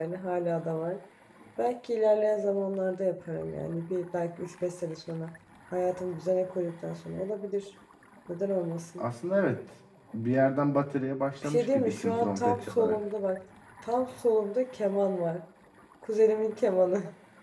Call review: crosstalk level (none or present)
present